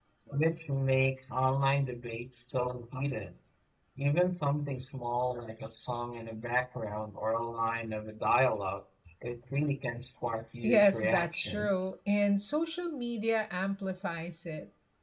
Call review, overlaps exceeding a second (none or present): present